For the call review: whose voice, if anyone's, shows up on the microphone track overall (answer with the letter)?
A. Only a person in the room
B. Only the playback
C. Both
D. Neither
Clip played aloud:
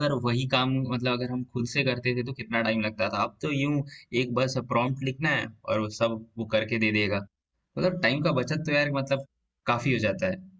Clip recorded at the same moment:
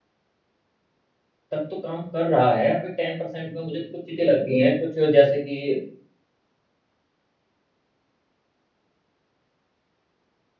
A